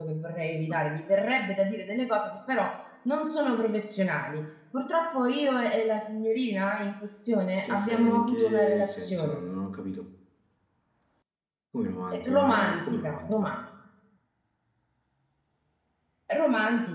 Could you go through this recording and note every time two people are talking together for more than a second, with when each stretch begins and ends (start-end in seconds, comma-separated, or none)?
7.6-9.4, 12.1-13.5